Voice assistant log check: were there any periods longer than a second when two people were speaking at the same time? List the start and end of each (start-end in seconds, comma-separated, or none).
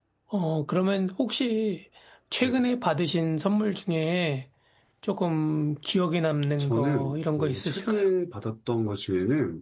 6.6-8.1